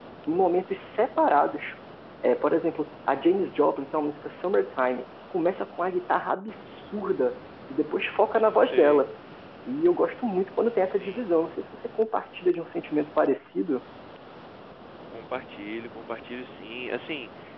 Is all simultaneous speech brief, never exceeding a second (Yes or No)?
Yes